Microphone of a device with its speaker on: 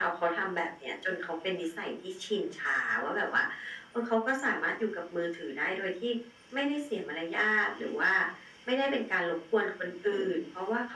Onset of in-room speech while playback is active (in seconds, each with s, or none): none